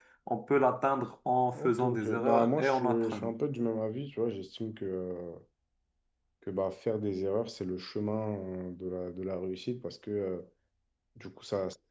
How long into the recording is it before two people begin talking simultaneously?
1.6 s

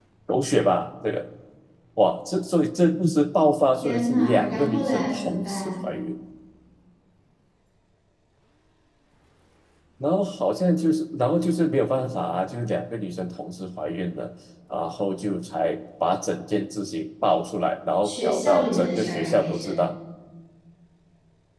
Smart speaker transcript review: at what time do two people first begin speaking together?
3.8 s

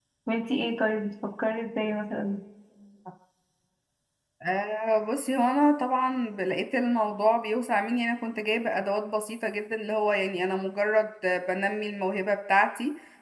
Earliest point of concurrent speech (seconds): none

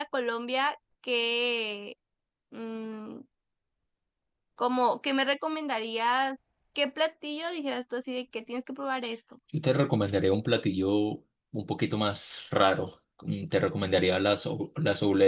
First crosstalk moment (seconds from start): none

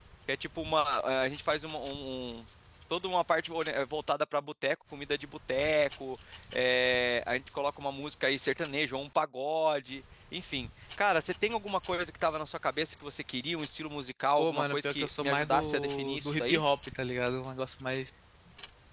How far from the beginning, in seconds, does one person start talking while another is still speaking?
14.4 s

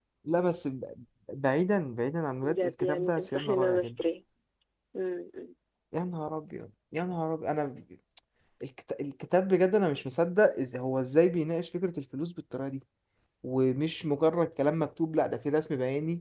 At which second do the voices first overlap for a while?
2.4 s

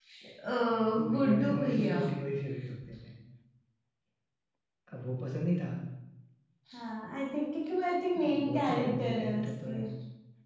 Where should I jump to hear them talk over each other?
0.8 s

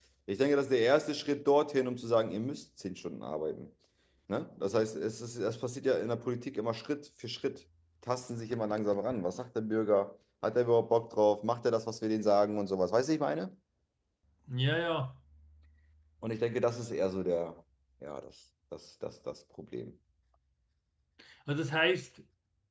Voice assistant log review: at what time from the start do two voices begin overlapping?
none

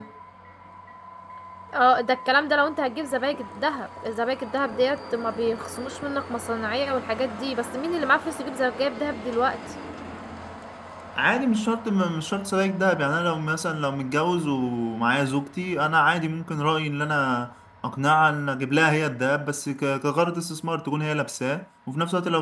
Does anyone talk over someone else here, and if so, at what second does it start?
none

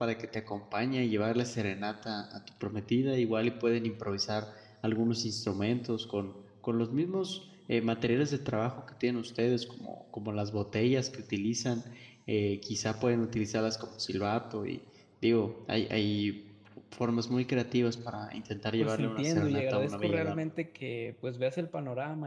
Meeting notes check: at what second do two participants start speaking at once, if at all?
18.8 s

